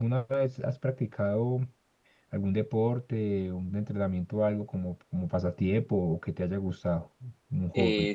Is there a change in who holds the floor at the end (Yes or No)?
Yes